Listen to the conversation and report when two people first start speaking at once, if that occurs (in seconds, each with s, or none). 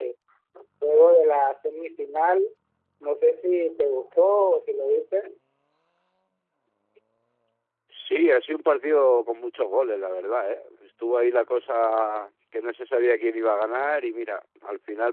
none